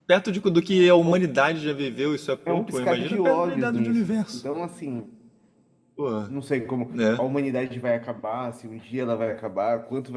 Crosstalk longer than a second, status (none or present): present